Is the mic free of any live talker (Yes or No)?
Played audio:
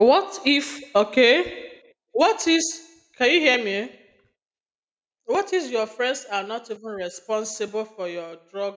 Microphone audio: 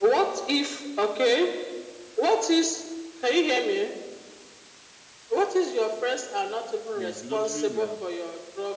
No